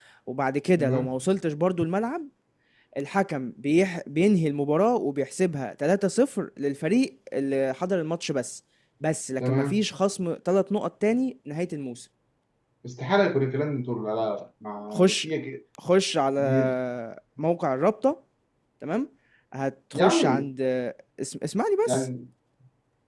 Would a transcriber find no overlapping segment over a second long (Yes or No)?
Yes